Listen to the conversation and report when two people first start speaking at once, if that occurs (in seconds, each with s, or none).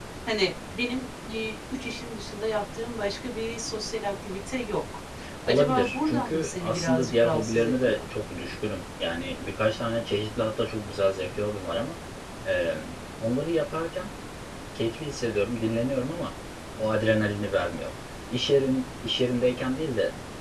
5.5 s